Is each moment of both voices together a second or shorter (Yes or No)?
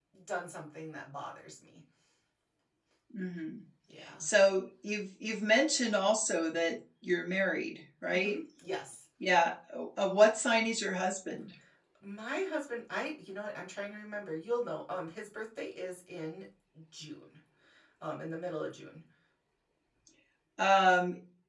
Yes